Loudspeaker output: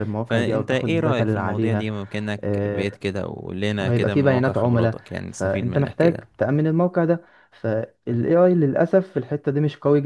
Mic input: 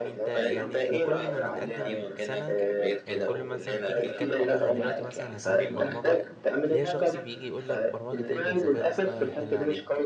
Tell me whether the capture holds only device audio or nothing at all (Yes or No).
No